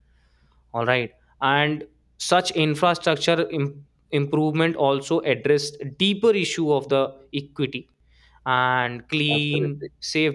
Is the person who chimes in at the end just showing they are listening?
Yes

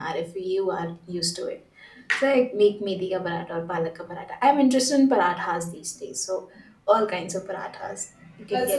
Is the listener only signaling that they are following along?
No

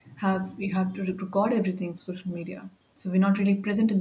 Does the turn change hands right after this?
No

